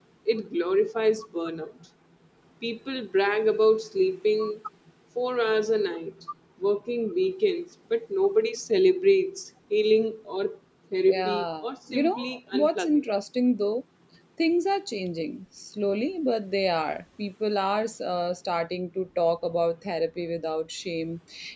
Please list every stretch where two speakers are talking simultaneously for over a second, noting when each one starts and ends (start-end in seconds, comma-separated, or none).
11.1-13.0